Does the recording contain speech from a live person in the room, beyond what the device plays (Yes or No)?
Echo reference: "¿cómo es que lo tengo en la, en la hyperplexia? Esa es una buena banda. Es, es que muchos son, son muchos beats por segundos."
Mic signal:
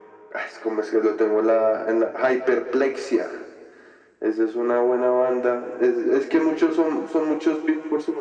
No